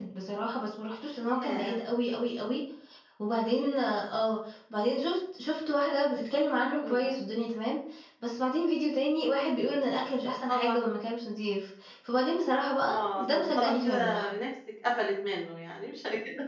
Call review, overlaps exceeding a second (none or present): present